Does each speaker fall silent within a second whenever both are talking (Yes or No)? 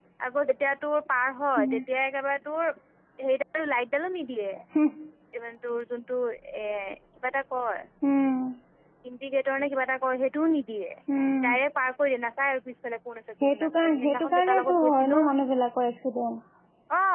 No